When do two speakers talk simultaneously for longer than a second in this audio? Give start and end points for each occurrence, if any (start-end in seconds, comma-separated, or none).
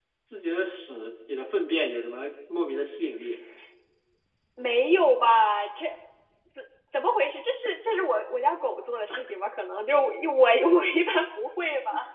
none